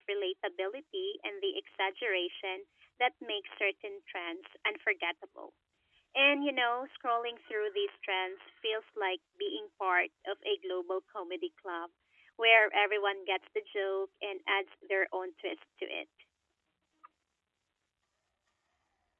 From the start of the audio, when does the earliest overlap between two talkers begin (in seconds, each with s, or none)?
none